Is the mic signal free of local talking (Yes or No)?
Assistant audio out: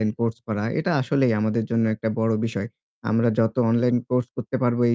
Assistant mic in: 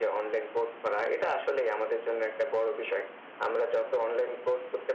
Yes